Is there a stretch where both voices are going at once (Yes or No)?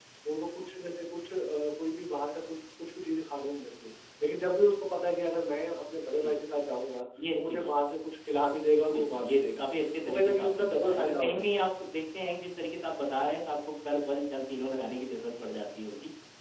Yes